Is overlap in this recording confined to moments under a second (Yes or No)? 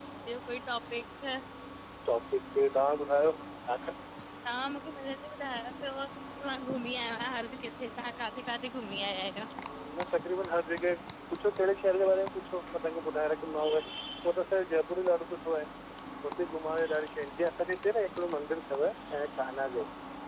Yes